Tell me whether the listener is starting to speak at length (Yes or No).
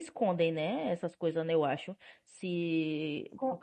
Yes